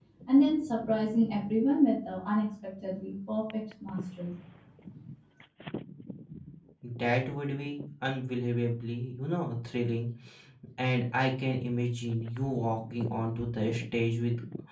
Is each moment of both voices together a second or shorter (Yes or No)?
Yes